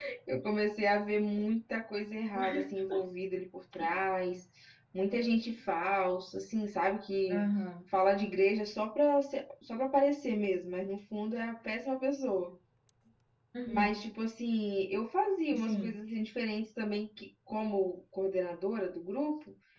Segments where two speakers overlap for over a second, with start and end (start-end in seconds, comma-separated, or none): none